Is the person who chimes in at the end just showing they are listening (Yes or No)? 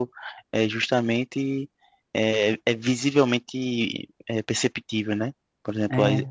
Yes